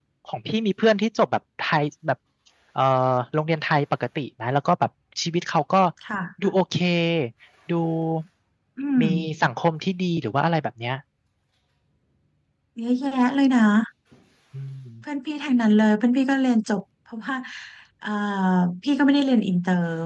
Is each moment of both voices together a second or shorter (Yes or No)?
Yes